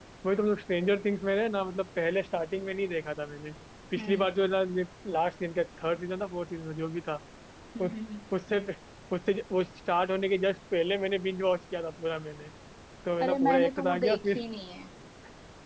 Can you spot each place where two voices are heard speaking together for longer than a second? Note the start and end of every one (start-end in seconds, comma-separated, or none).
13.2-14.4